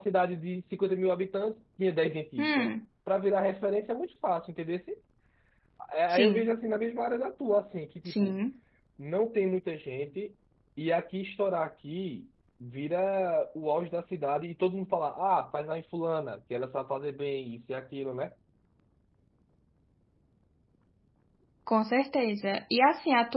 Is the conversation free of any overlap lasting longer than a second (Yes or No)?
Yes